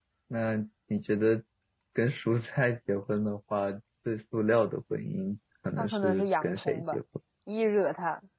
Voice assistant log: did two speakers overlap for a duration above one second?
Yes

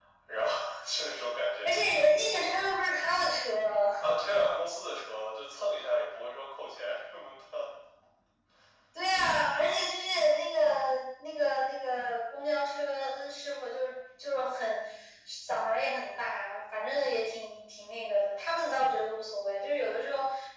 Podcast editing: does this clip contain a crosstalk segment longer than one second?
No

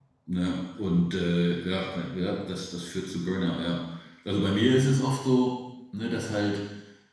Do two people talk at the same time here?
No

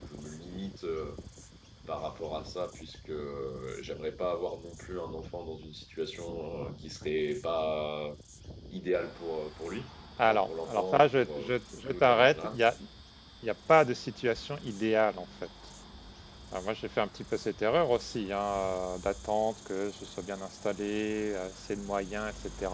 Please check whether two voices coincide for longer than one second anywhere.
Yes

